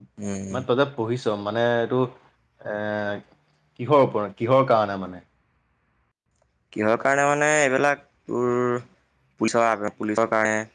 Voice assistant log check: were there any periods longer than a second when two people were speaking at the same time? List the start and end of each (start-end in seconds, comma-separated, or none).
none